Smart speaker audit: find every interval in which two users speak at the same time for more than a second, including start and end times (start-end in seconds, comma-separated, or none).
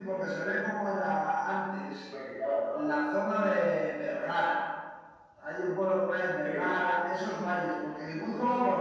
none